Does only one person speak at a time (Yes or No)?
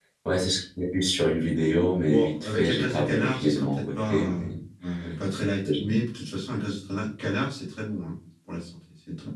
No